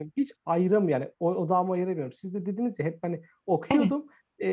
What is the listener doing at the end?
listening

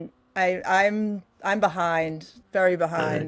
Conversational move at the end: taking over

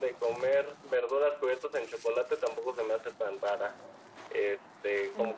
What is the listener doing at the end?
listening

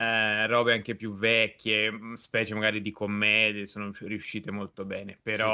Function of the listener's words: listening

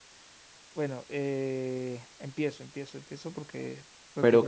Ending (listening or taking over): taking over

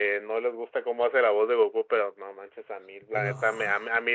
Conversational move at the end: listening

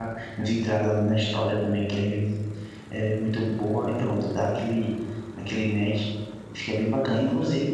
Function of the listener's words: listening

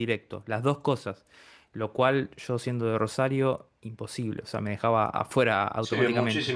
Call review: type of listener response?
taking over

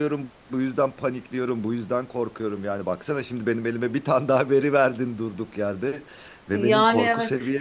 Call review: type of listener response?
listening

